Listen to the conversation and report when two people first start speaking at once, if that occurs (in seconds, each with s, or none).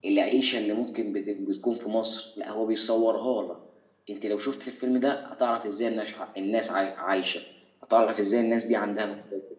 none